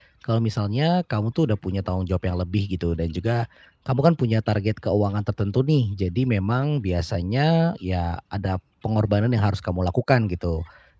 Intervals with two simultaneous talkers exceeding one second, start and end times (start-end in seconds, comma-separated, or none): none